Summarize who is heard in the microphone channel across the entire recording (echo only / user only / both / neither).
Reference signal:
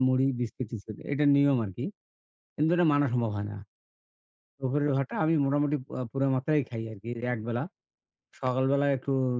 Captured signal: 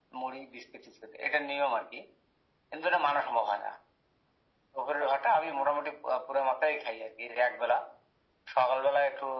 echo only